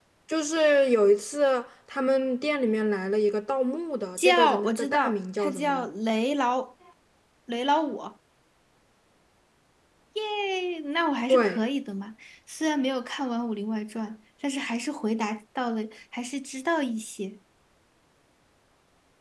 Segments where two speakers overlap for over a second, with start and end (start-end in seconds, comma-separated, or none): 4.2-5.9